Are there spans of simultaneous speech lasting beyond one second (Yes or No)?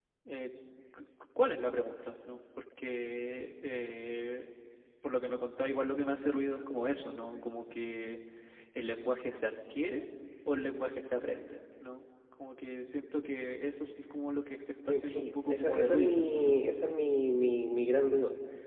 Yes